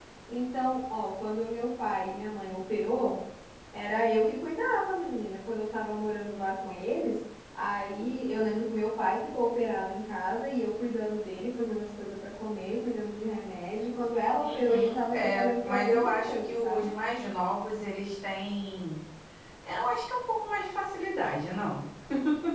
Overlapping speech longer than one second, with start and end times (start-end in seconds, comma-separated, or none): 14.4-16.9